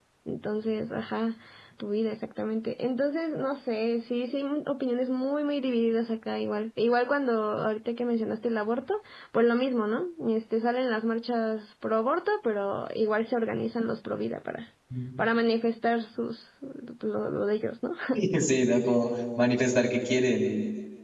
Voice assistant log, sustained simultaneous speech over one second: none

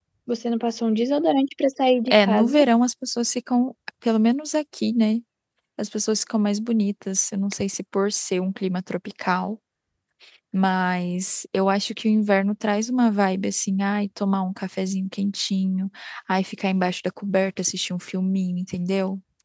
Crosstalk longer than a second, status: none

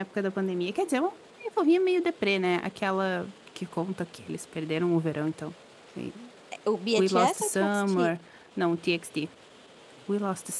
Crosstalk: present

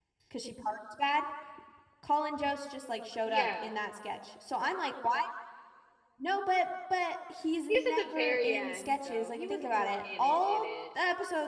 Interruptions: present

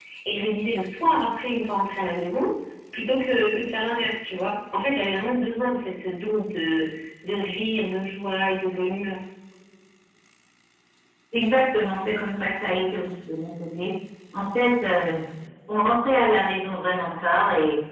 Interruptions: none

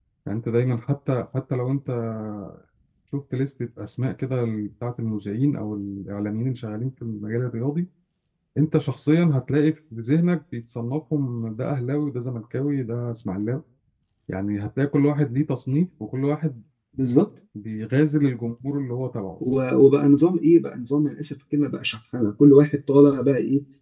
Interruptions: none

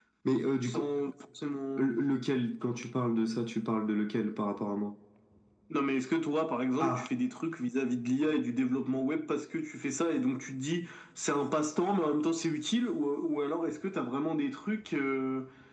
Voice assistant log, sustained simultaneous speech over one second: none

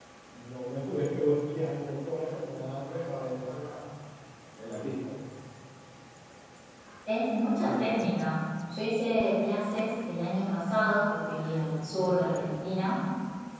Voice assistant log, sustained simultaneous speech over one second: none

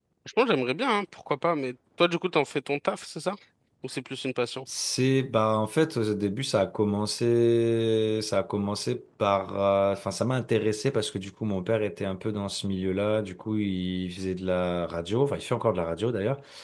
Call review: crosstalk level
none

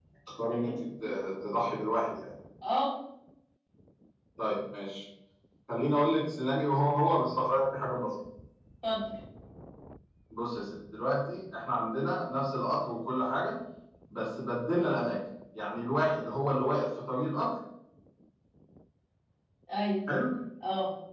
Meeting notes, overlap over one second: none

